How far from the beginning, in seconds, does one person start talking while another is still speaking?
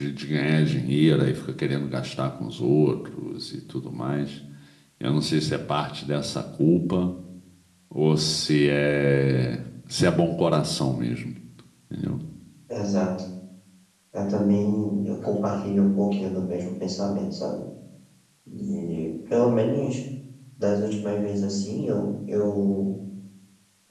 none

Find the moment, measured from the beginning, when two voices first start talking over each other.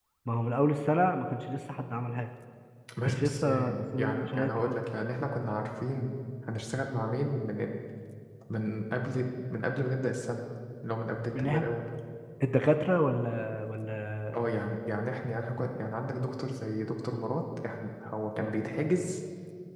3 s

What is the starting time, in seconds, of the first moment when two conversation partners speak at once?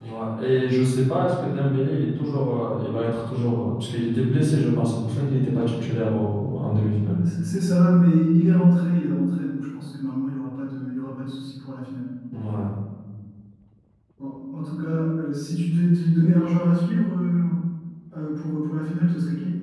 none

